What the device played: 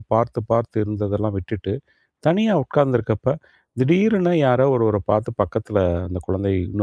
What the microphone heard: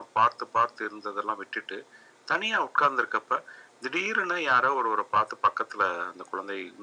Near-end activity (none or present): none